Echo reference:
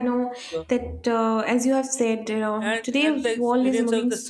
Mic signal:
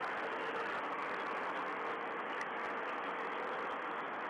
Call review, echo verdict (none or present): none